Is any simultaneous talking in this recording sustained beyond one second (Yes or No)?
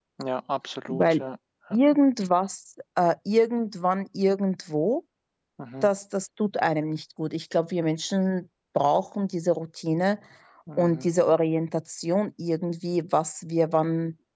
No